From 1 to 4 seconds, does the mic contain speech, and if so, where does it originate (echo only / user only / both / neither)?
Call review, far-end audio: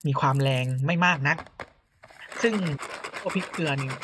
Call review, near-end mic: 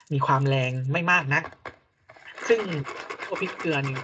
echo only